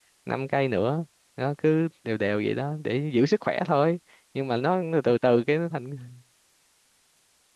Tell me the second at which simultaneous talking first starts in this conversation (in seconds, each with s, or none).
none